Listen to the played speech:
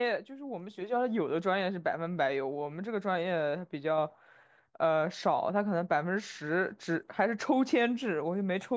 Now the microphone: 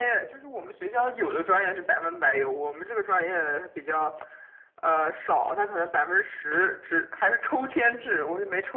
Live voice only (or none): none